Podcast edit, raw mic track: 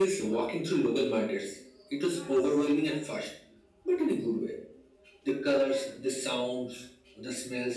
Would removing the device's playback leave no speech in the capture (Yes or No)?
Yes